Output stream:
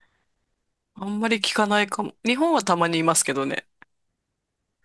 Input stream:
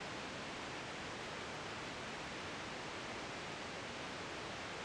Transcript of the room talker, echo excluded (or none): none